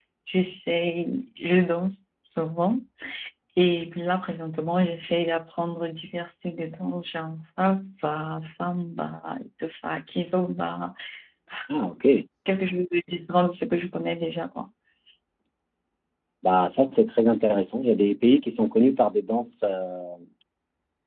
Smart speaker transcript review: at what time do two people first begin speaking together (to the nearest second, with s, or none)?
none